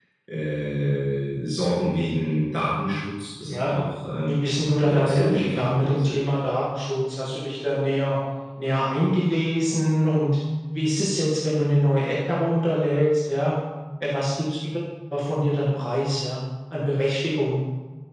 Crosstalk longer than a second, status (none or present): present